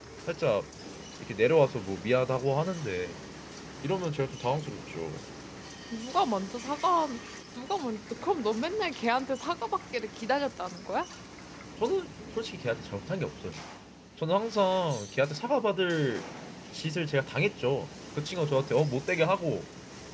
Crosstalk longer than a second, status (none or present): none